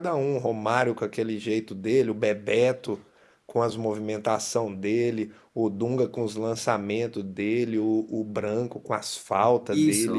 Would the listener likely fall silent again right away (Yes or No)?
No